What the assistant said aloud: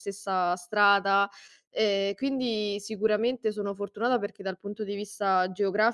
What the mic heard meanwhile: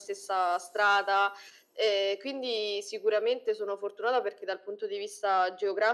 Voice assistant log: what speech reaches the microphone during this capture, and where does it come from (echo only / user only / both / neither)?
echo only